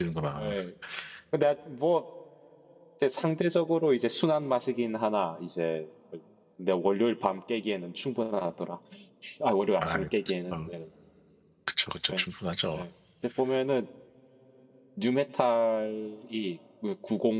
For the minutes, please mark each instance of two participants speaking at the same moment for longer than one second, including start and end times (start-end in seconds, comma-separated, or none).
none